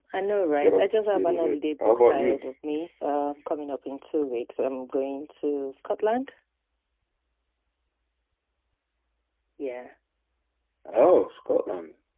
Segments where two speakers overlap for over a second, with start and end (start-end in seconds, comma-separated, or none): 0.6-2.4